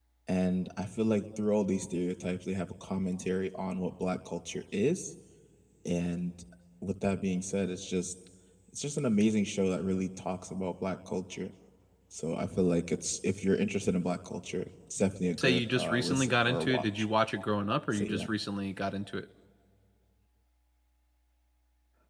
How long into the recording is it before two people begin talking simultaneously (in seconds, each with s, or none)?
15.4 s